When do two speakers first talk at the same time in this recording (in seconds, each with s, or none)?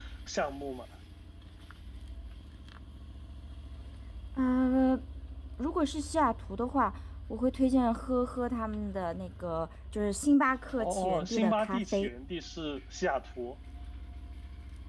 10.8 s